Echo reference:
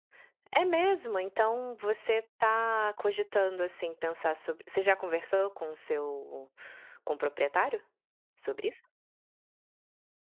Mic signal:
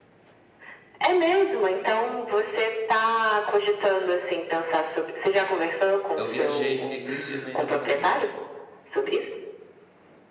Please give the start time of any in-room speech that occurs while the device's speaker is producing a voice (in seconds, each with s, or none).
6.2 s